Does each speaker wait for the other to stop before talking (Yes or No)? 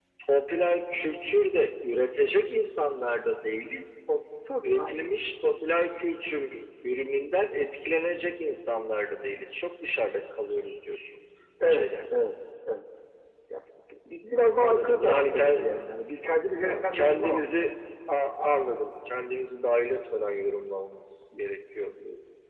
No